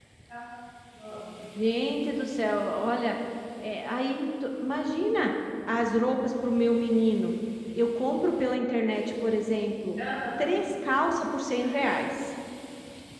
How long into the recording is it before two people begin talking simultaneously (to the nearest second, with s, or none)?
none